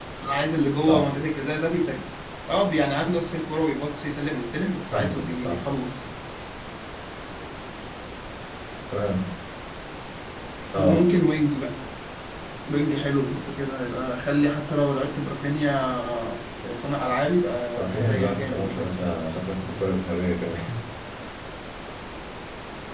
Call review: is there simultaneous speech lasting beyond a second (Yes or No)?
Yes